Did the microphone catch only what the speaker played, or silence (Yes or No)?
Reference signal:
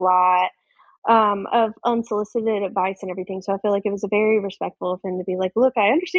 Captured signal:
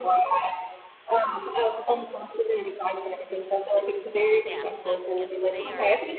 No